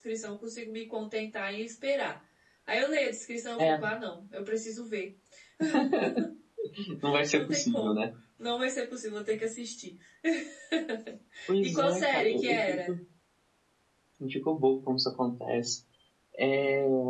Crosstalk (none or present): present